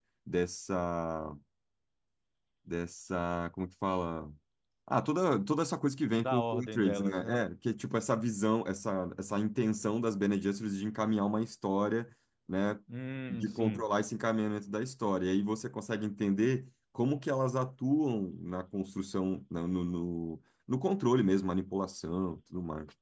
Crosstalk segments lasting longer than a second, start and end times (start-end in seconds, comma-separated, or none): 6.2-7.4